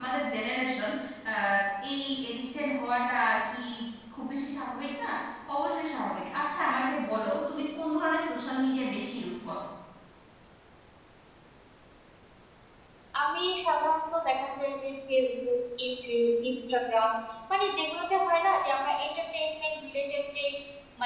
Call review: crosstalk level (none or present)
none